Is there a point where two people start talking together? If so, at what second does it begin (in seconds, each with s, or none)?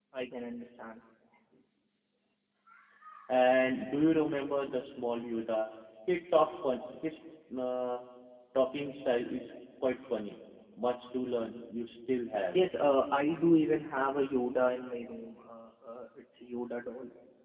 none